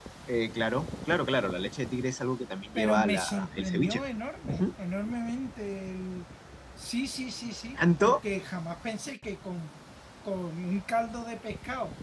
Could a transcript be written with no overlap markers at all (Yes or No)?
No